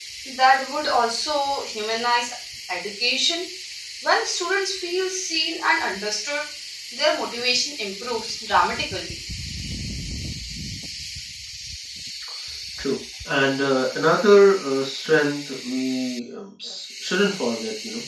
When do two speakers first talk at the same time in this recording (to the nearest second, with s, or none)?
none